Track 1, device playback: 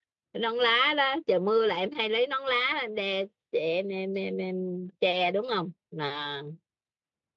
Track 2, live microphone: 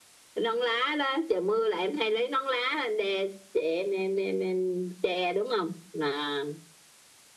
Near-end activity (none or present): none